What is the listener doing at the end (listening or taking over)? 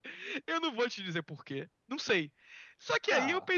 listening